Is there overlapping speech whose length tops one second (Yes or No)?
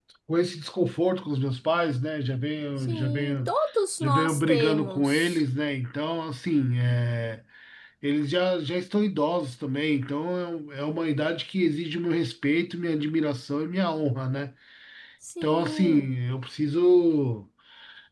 Yes